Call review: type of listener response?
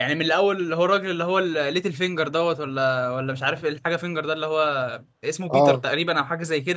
listening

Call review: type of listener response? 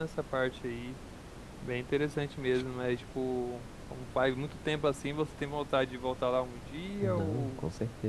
taking over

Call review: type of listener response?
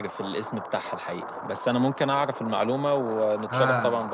taking over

